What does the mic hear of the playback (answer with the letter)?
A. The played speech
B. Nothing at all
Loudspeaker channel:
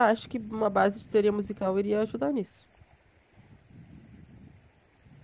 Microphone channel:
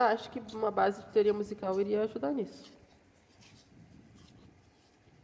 A